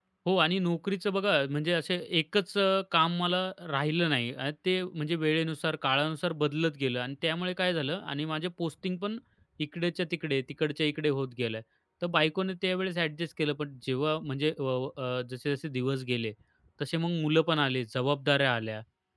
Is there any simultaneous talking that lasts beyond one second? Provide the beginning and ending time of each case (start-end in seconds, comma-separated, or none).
none